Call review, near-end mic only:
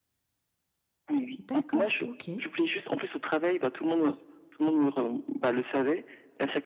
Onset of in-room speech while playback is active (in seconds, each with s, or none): 1.4 s